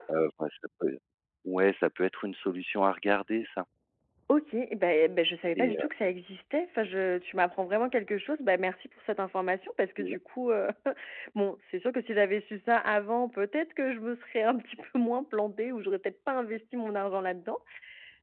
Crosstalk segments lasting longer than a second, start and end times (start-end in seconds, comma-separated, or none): none